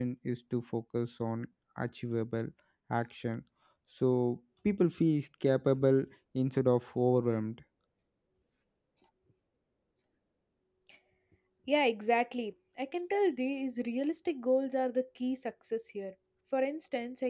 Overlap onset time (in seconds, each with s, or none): none